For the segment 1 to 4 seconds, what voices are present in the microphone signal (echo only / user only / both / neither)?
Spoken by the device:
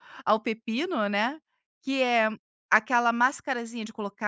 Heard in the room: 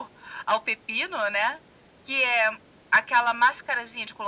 echo only